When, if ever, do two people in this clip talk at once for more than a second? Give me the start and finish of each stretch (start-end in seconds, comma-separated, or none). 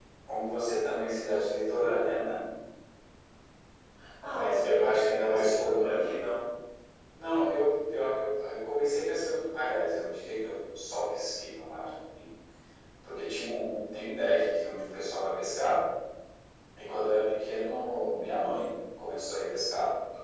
4.3-6.0